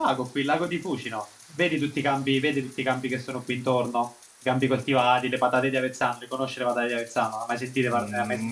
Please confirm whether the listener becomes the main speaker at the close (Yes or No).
Yes